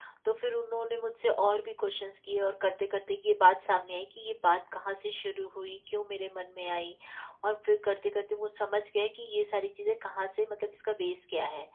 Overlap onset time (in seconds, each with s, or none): none